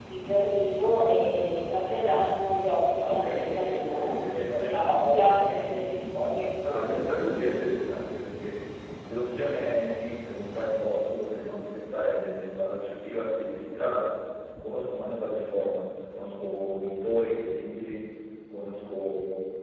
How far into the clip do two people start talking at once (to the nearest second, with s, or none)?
3 s